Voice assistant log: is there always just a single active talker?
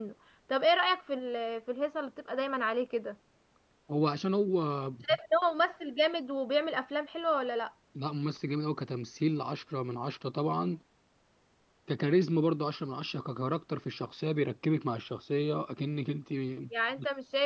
Yes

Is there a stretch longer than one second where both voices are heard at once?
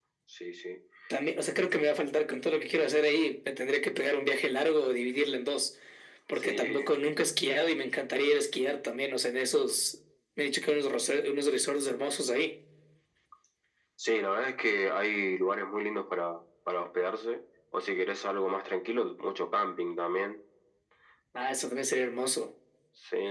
No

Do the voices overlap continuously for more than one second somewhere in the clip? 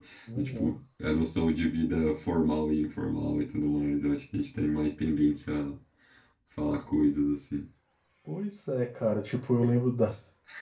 No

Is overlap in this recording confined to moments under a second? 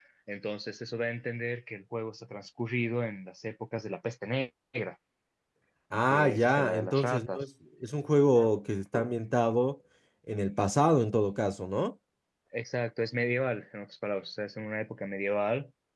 No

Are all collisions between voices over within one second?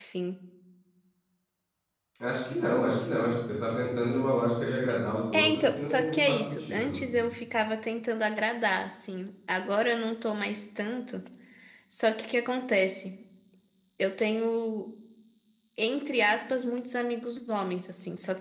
No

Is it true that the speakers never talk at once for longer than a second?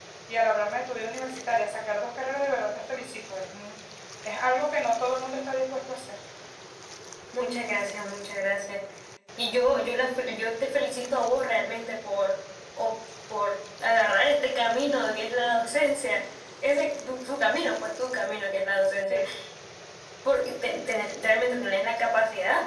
Yes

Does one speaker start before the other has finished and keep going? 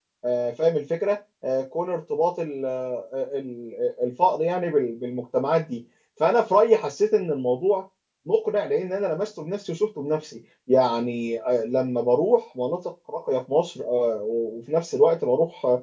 No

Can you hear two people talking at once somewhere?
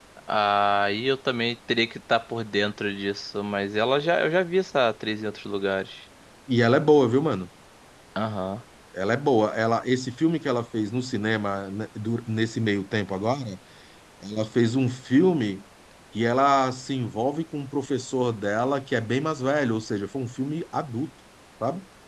No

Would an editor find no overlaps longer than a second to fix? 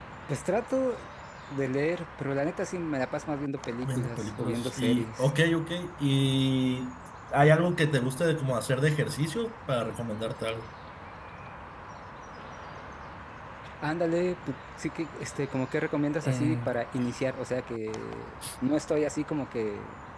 No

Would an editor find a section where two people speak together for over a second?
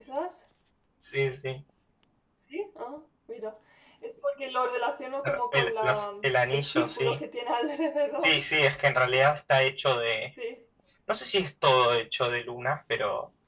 Yes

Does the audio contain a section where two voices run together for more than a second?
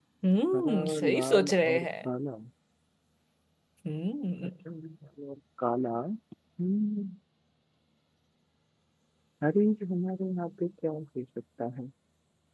Yes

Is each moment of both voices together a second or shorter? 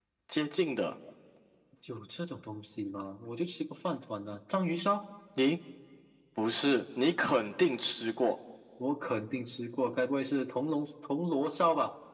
Yes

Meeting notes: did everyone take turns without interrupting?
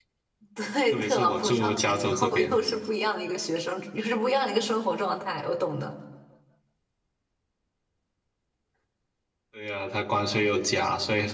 No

